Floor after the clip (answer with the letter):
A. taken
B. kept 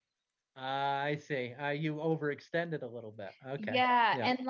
A